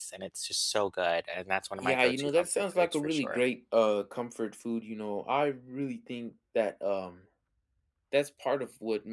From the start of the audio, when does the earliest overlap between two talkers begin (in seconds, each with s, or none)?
1.8 s